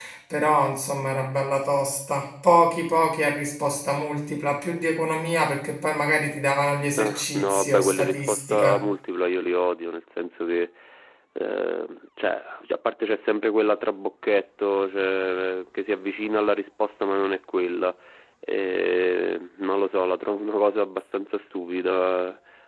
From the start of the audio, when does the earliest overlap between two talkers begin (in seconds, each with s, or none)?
6.9 s